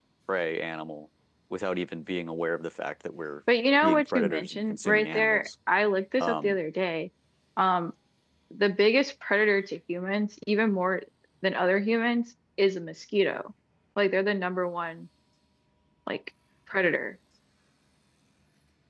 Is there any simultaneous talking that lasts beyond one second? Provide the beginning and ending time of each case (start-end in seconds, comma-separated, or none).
3.8-5.5